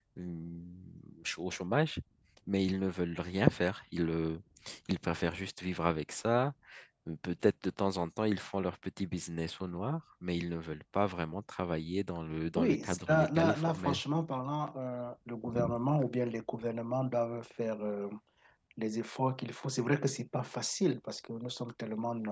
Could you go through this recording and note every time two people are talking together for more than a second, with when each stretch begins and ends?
12.6-14.0

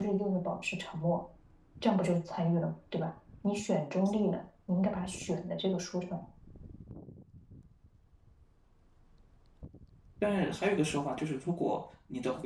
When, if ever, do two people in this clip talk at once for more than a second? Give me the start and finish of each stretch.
none

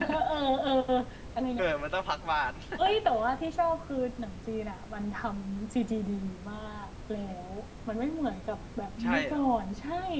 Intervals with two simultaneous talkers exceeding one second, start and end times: none

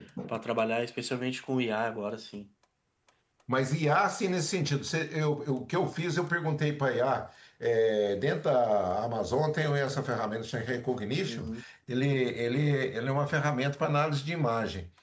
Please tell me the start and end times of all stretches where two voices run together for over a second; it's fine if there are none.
none

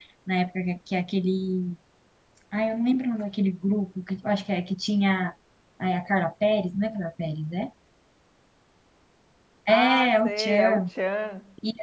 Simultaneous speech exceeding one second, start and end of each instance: 9.7-10.9

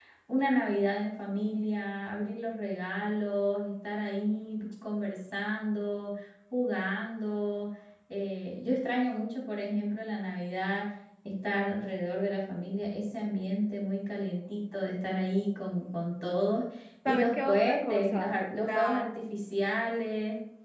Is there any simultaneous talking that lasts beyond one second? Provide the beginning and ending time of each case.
17.1-19.2

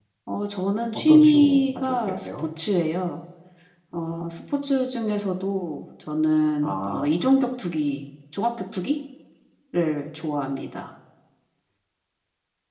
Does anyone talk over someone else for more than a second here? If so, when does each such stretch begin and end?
0.9-2.5

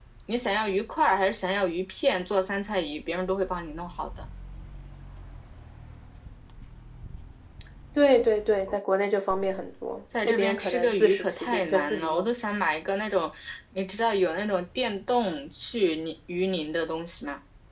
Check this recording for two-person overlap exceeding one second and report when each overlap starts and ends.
10.2-12.3

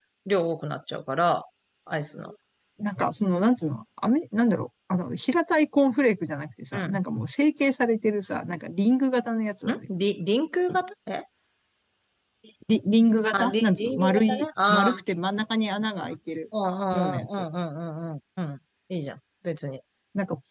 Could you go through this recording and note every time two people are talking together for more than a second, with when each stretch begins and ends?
13.3-15.0

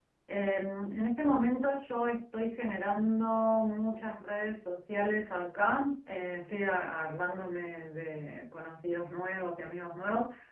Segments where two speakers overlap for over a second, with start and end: none

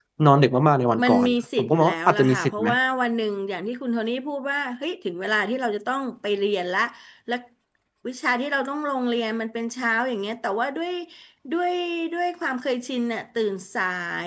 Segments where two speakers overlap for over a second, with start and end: 1.0-2.7

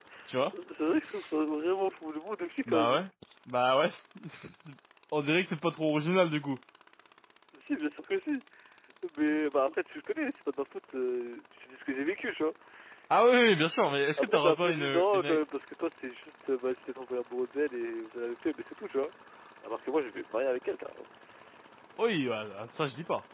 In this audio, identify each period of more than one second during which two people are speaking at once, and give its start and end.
14.2-15.4

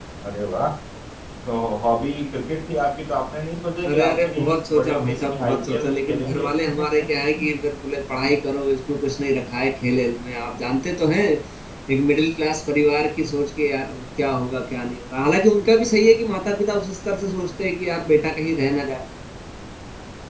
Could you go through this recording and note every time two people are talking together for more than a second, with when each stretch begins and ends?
3.9-6.5

